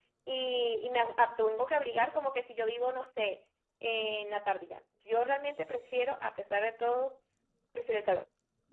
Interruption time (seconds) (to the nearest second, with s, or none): none